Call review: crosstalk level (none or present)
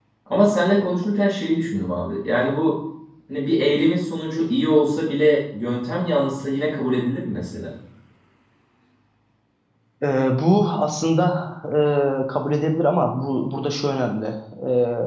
none